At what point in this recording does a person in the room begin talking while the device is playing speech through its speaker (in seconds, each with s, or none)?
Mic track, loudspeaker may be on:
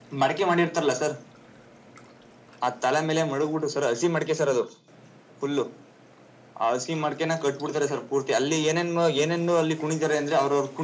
none